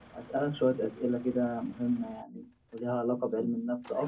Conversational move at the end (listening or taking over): listening